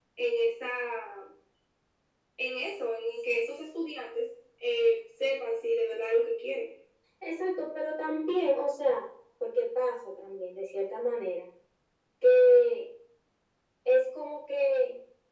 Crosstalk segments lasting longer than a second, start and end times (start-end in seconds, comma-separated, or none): none